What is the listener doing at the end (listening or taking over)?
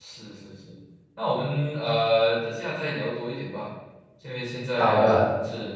listening